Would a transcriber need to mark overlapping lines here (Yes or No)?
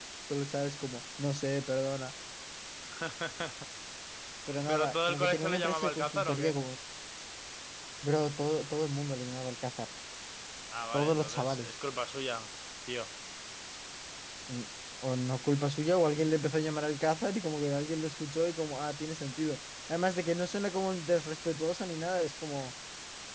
Yes